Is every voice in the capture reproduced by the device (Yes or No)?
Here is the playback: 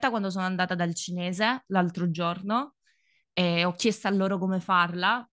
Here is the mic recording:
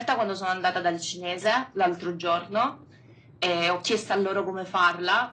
Yes